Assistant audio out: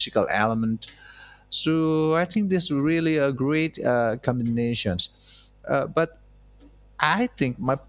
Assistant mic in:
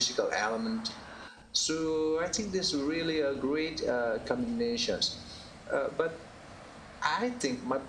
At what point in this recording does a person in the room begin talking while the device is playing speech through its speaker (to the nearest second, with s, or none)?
none